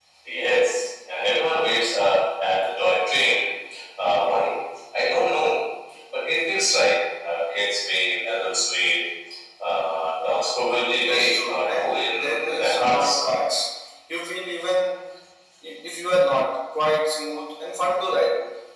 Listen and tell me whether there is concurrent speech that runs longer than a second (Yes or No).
Yes